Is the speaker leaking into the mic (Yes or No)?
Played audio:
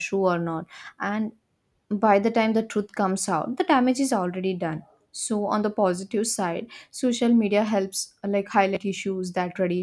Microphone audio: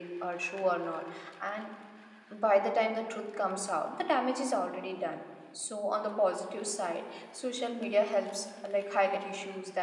Yes